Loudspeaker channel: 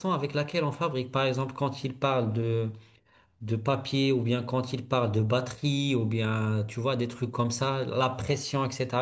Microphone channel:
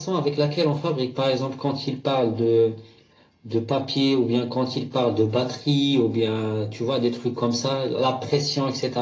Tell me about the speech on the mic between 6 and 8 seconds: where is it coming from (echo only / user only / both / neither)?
echo only